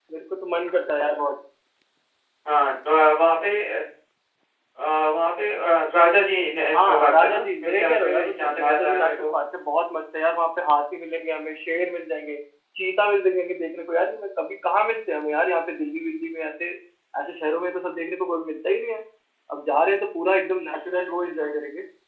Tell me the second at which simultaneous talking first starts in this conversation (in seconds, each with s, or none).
6.7 s